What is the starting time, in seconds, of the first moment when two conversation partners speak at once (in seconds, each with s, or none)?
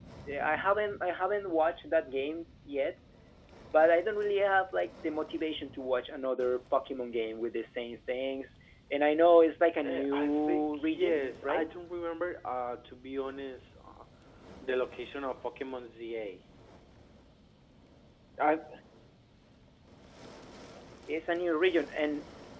9.8 s